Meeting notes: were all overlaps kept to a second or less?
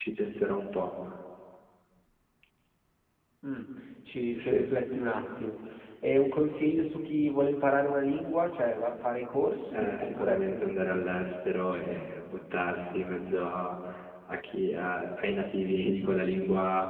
No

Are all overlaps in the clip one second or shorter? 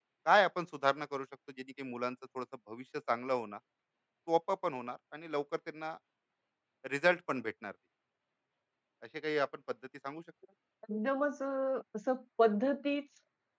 Yes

